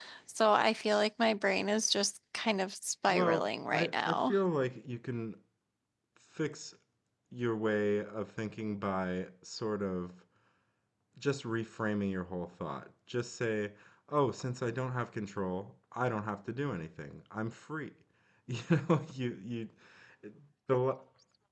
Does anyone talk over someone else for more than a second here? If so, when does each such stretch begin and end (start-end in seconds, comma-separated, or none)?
3.1-4.4